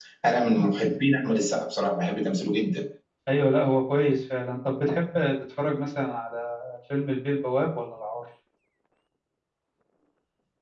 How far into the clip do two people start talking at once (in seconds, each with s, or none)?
none